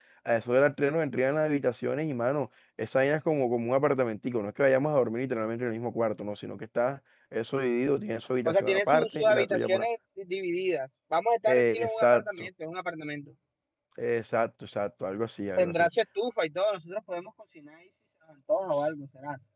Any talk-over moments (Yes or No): Yes